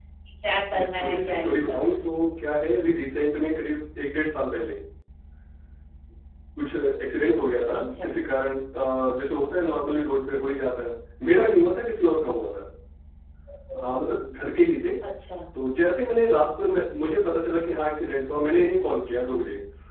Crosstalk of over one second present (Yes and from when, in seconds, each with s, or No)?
Yes, from 0.8 s